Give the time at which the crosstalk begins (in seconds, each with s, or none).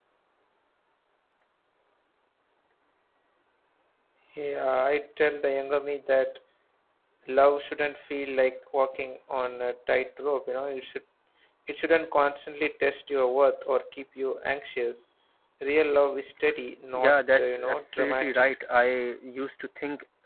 16.9 s